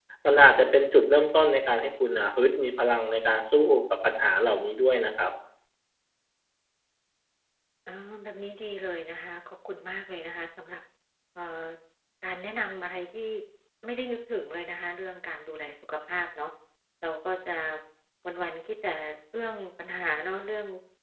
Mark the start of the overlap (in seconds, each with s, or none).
none